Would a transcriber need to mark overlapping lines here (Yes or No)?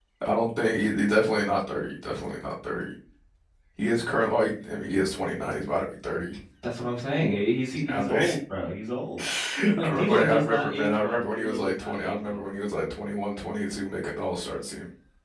Yes